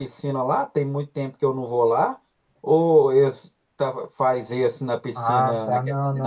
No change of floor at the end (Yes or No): No